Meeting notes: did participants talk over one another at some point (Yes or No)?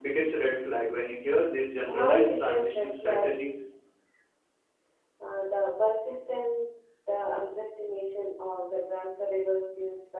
Yes